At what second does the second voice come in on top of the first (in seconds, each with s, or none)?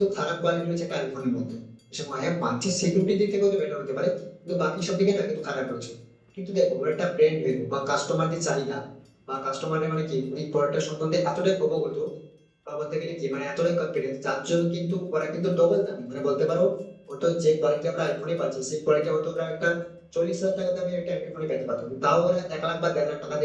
none